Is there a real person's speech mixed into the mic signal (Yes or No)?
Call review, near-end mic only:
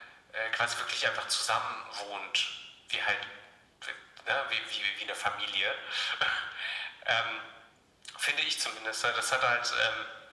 No